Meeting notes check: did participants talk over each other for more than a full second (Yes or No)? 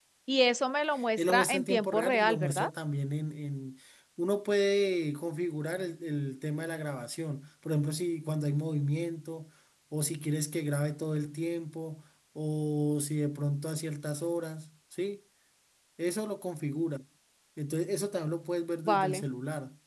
Yes